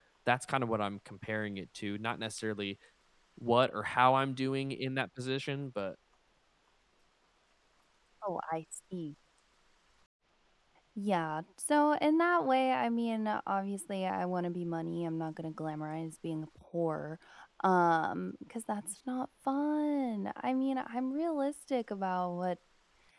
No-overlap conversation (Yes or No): Yes